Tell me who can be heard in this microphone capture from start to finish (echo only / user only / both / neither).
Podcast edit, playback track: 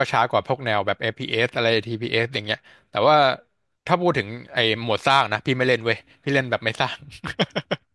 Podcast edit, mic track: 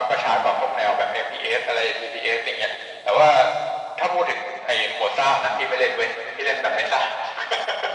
echo only